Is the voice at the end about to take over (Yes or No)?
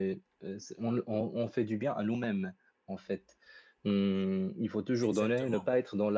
No